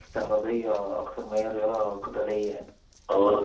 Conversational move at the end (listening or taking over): taking over